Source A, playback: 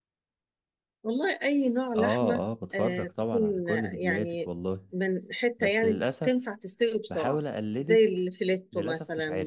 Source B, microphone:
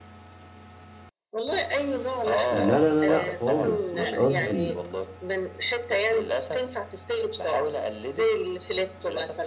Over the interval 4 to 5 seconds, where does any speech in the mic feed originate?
both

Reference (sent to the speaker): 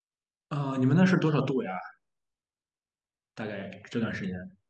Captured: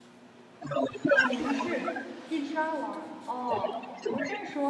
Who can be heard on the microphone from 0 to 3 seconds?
both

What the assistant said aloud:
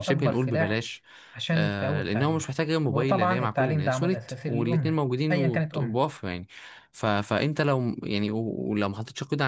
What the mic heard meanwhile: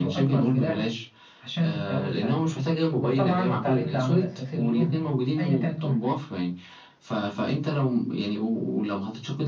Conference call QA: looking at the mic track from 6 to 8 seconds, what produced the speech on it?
echo only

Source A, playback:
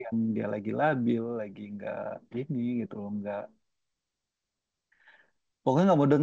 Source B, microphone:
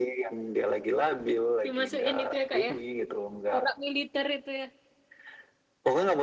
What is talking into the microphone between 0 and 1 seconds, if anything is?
echo only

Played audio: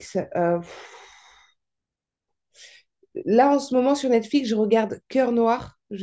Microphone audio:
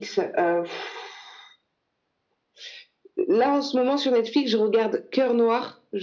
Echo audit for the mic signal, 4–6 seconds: echo only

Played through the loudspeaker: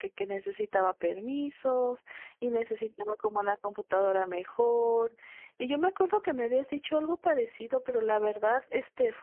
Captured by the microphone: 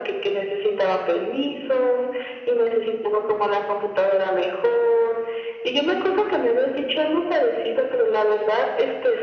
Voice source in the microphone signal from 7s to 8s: echo only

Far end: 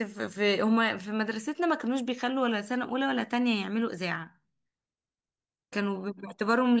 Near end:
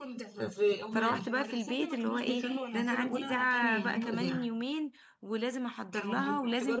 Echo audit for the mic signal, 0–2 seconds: both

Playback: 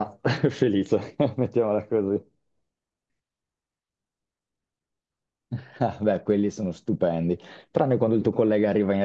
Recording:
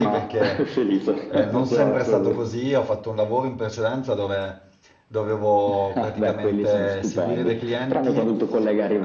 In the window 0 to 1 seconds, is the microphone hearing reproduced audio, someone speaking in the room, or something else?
both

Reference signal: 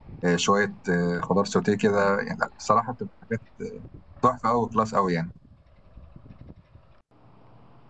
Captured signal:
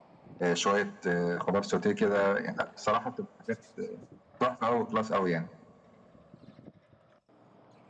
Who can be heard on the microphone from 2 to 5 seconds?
echo only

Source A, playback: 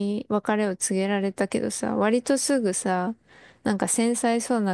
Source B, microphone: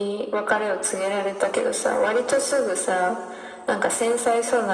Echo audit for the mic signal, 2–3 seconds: echo only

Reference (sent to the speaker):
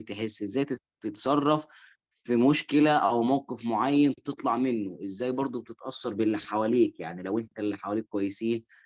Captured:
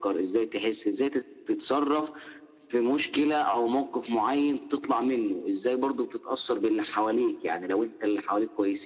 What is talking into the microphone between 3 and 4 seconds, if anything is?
echo only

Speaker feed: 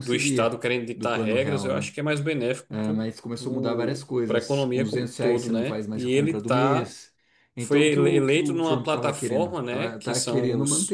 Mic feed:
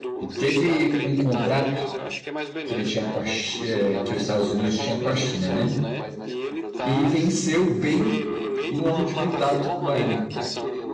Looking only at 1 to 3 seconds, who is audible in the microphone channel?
both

